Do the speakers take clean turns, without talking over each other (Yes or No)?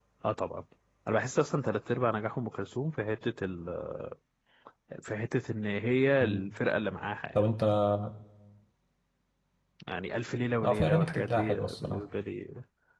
No